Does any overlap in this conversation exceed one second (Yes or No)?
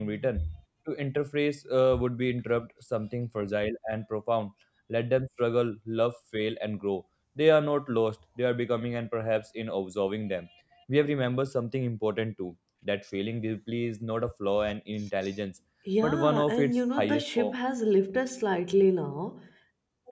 Yes